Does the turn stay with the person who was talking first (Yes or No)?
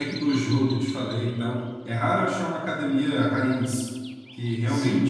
Yes